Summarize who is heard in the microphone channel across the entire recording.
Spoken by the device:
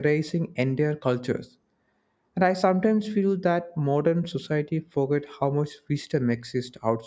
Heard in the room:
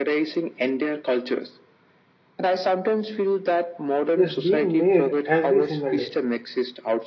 both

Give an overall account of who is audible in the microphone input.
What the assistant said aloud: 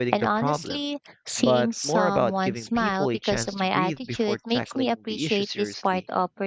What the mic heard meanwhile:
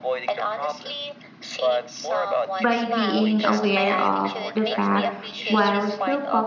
both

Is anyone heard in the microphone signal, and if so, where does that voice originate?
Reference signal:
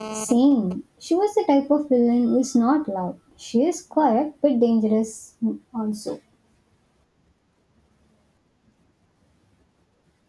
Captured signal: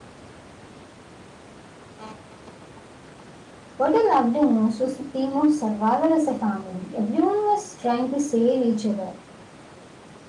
user only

